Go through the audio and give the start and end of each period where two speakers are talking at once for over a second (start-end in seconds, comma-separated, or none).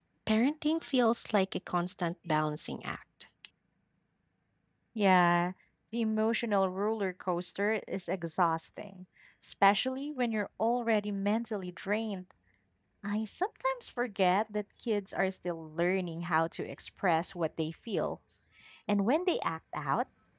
none